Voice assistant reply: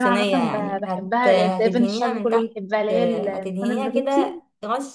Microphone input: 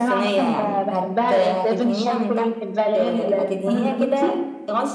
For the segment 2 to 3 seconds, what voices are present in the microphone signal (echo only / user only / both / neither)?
echo only